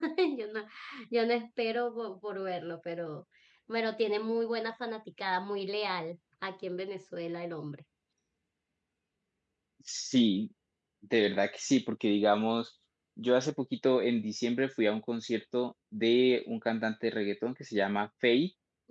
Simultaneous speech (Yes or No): No